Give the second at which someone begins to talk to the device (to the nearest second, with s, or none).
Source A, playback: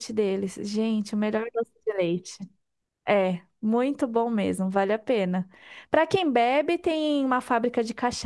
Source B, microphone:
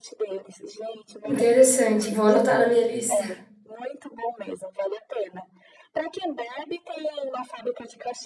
1 s